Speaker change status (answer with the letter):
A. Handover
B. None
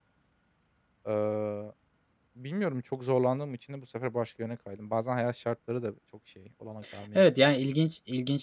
A